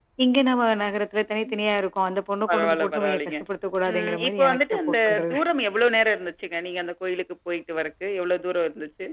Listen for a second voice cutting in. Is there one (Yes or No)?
Yes